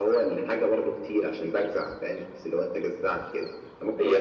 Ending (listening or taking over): taking over